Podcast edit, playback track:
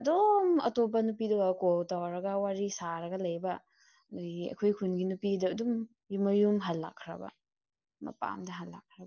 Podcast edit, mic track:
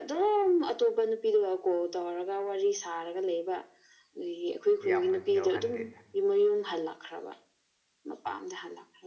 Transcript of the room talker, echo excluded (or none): ꯌꯥꯝꯅꯗꯤ ꯌꯥꯎꯍꯟꯗꯦꯗ